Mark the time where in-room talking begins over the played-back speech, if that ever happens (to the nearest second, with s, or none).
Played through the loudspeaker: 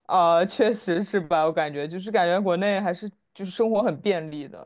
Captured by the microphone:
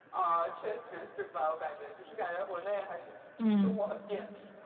3 s